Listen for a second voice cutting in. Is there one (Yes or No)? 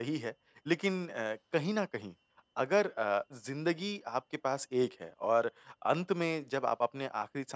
No